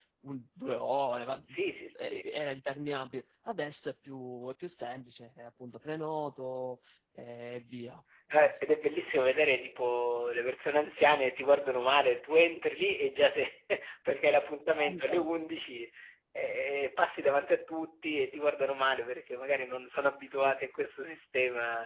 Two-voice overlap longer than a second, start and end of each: none

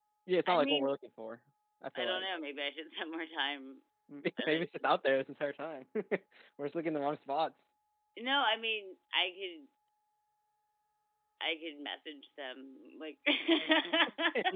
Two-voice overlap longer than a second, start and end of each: none

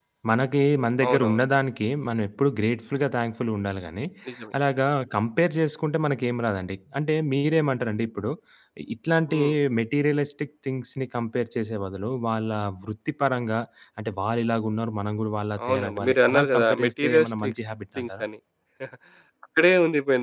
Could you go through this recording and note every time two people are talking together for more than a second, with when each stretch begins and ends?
15.7-17.5

